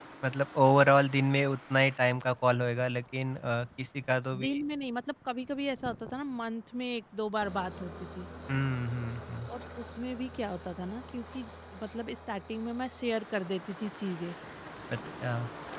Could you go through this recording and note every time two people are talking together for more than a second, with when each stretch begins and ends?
none

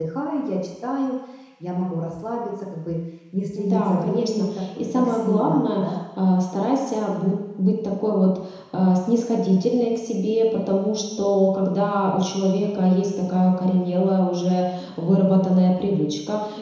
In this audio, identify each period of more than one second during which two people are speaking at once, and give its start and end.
3.6-6.0

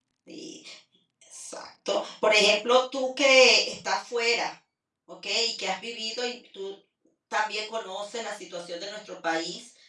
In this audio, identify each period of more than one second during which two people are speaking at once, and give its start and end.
none

